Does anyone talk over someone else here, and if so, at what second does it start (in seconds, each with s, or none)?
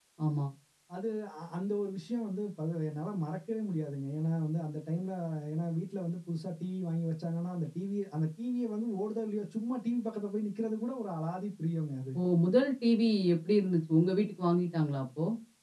none